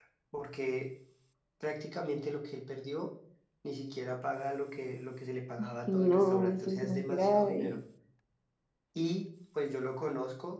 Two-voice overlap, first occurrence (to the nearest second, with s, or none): 6 s